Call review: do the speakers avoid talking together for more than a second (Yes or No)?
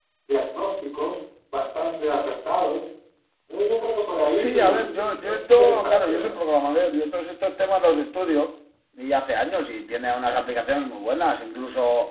No